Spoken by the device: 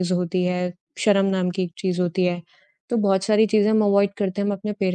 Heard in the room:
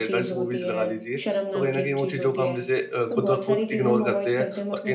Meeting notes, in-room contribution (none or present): present